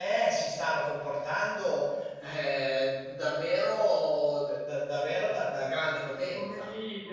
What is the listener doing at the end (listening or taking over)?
taking over